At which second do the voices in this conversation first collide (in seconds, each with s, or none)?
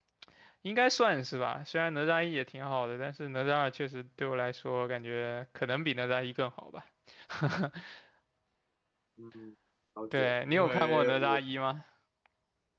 10.2 s